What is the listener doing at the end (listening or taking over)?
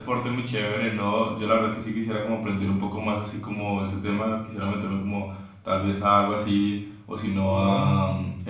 listening